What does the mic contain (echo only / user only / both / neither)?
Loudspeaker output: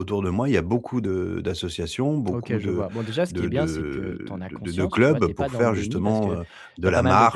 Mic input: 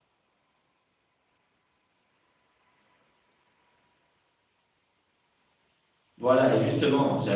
user only